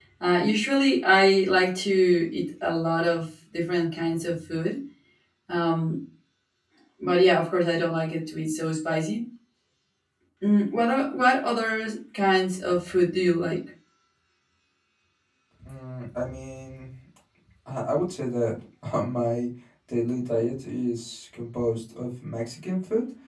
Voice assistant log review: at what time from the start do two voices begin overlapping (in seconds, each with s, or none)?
none